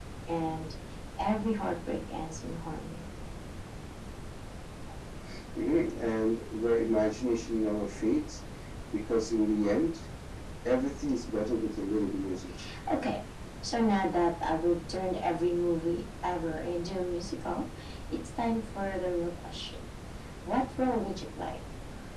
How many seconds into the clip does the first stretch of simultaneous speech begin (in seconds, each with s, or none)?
none